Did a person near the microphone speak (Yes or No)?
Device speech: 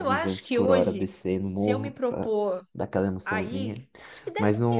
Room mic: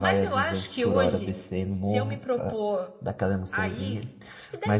No